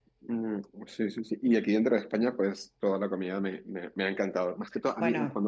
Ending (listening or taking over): listening